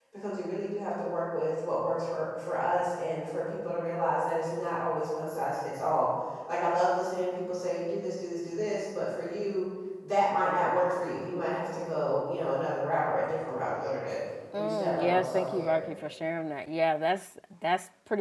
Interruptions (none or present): present